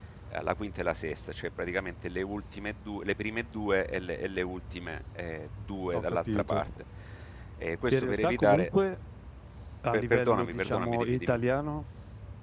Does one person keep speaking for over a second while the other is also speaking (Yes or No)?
Yes